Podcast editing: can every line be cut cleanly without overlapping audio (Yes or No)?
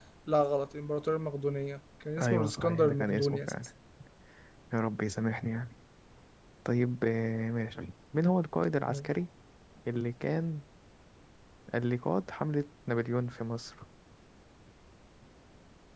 No